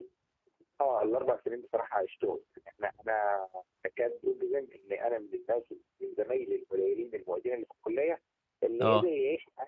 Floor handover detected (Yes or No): No